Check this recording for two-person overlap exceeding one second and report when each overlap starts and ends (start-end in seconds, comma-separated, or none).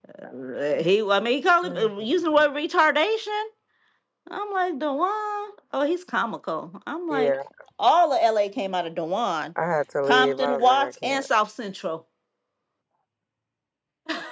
10.1-11.3